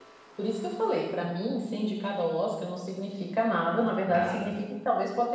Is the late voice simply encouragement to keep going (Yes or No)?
Yes